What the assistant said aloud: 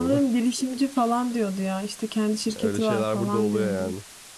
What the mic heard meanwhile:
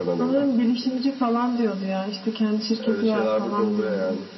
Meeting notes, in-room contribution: none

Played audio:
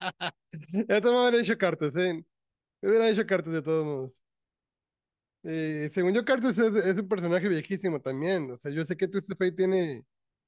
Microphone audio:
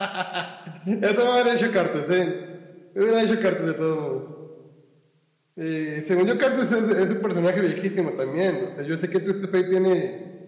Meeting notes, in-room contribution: none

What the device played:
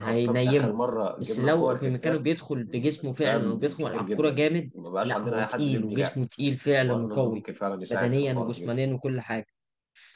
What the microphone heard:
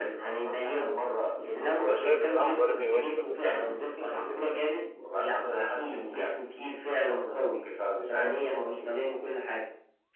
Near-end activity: present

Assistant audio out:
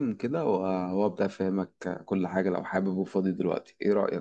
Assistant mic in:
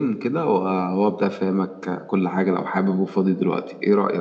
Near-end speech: none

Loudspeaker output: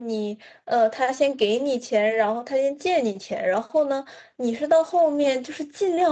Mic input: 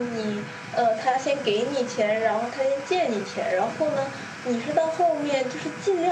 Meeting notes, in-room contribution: none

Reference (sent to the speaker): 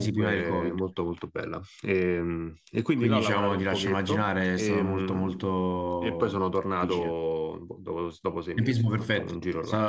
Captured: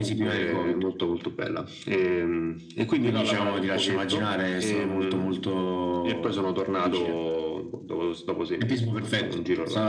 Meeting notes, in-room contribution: none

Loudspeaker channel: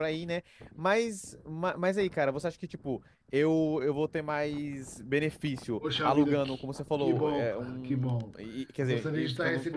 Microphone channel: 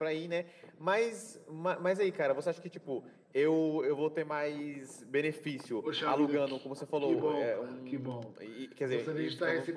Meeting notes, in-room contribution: none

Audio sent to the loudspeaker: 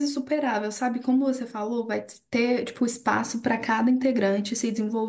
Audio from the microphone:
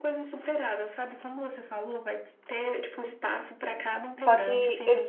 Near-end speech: present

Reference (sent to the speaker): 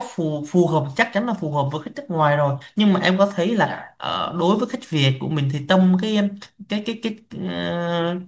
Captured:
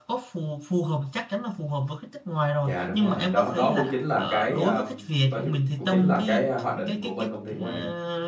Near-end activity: present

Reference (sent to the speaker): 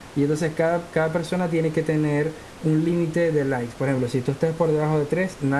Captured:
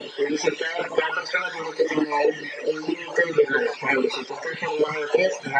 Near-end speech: none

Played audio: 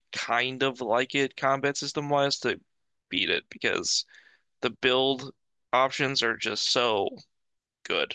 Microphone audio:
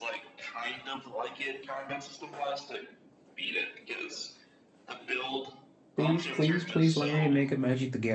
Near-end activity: present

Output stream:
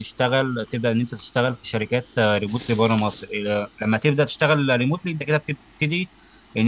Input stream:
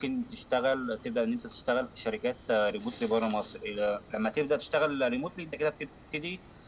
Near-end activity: none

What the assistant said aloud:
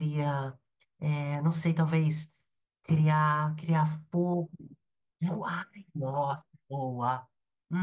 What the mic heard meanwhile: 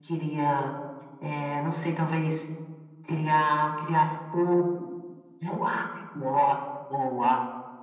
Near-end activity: none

